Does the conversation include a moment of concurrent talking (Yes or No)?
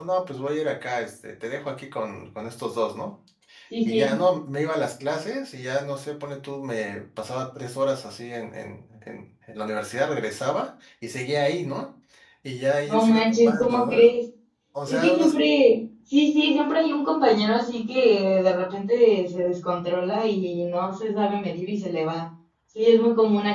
Yes